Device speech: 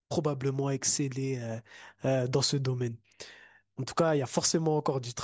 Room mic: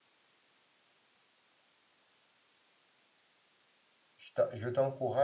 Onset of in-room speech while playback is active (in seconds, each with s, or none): 4.2 s